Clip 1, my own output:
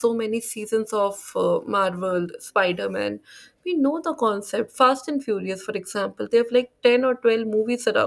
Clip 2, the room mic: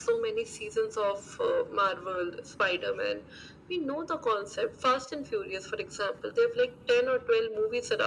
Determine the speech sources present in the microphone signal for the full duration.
echo only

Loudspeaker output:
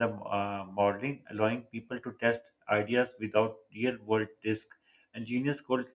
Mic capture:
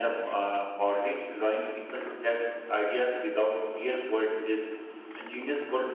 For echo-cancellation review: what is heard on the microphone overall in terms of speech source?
echo only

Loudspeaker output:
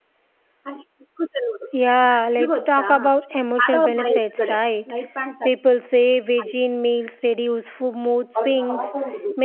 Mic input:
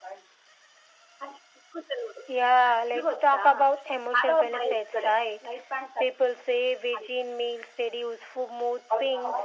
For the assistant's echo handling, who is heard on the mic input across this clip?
echo only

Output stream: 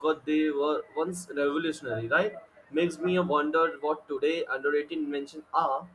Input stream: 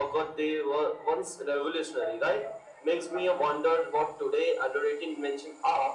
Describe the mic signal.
echo only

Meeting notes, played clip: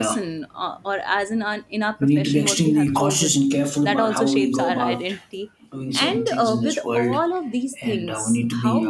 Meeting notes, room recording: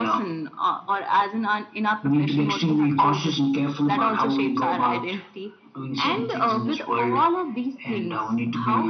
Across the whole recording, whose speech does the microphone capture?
echo only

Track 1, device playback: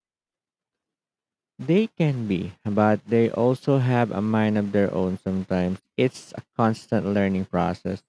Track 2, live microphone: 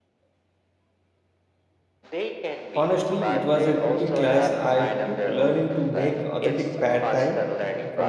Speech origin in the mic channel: both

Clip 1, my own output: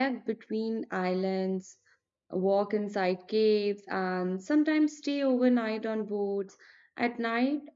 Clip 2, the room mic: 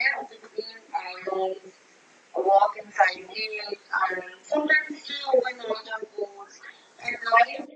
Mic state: echo only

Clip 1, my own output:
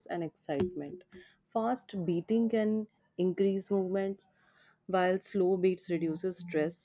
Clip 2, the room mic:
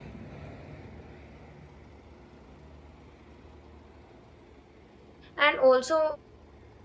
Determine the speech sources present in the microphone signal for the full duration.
user only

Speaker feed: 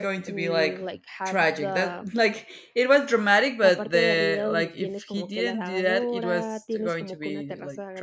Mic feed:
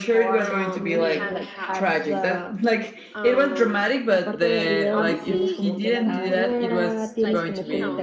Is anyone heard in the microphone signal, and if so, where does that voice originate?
both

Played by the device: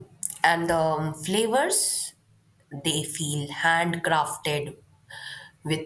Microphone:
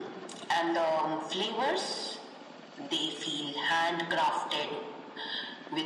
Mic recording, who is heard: echo only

